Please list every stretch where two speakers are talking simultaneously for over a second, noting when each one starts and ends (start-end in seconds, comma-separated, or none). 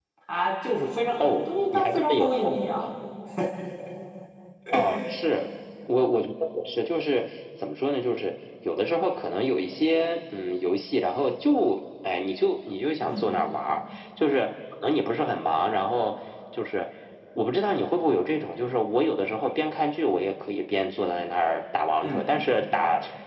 1.5-2.8